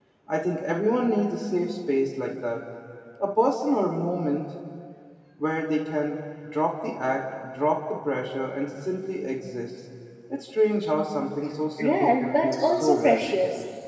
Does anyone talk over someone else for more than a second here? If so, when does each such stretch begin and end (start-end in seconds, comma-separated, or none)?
11.8-13.2